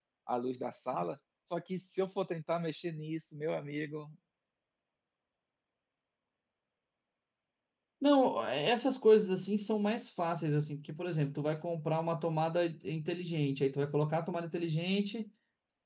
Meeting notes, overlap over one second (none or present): none